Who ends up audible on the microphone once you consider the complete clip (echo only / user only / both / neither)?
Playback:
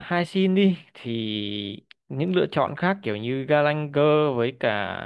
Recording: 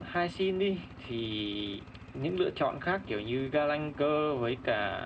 echo only